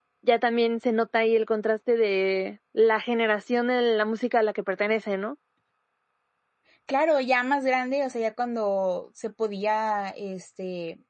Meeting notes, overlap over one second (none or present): none